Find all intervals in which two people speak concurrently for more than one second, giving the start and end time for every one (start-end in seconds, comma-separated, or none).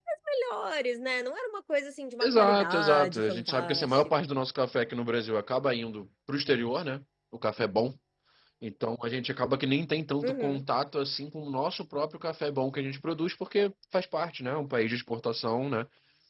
2.2-4.1